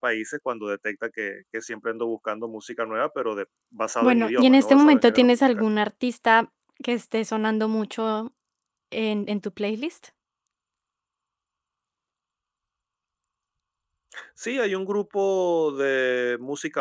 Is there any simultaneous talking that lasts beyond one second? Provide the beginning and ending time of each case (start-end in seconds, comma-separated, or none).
4.0-5.6